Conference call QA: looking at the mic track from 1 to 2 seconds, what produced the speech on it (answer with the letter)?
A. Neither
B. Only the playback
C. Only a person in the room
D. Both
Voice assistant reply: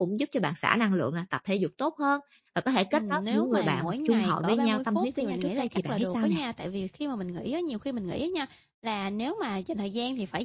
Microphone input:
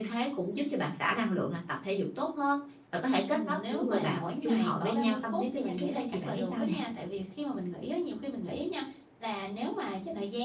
B